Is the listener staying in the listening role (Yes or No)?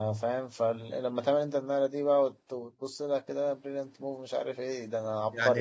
No